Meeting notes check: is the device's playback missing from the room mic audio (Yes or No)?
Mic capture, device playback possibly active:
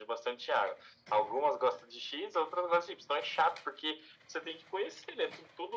No